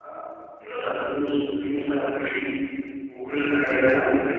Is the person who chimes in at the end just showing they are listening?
No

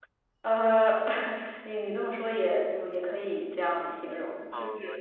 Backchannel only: No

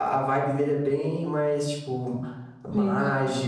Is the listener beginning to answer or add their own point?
No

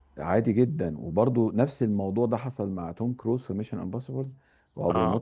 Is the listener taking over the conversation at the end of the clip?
No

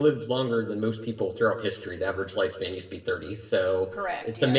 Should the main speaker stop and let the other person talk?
No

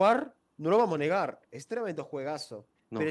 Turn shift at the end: No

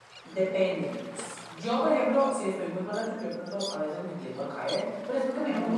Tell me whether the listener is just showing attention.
Yes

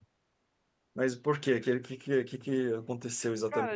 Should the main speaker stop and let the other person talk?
Yes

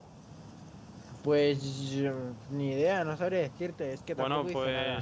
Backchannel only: No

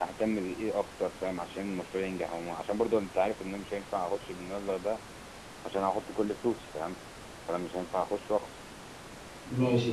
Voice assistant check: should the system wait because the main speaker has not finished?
No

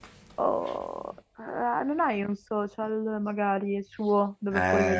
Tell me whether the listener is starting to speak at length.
Yes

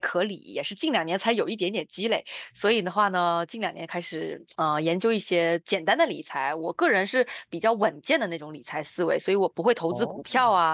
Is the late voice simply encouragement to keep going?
Yes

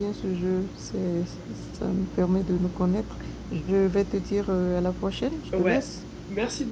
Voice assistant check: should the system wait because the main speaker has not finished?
No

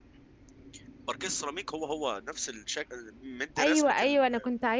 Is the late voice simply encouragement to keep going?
No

